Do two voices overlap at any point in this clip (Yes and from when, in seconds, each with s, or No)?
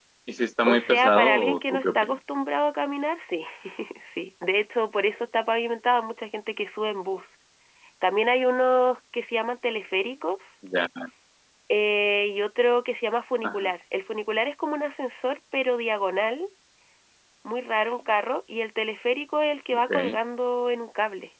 Yes, from 0.7 s